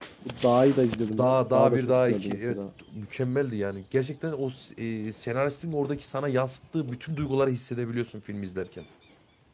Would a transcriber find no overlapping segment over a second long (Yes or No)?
No